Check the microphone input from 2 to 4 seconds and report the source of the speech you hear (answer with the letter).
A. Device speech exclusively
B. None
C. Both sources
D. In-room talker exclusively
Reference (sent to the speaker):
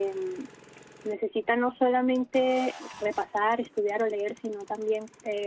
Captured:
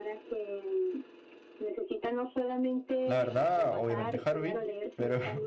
C